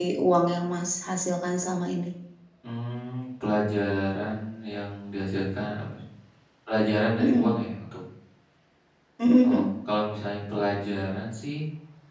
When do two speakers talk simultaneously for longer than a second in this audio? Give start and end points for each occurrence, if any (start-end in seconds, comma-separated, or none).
none